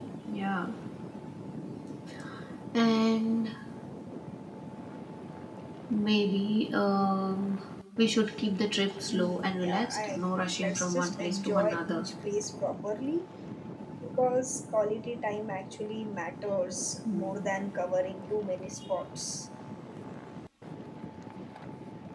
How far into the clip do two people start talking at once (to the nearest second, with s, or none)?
9 s